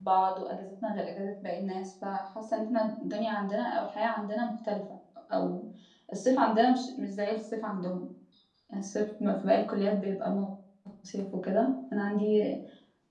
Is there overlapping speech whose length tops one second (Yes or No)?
No